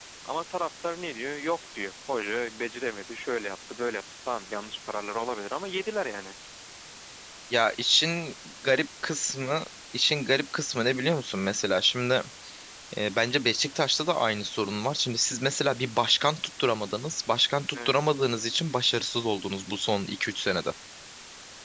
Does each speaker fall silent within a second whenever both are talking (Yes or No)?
Yes